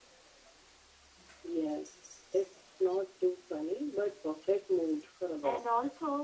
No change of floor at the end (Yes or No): No